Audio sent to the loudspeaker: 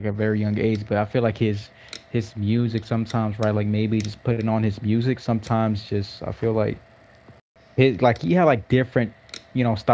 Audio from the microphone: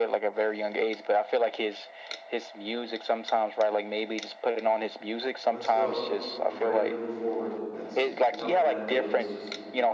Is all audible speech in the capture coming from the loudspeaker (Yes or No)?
No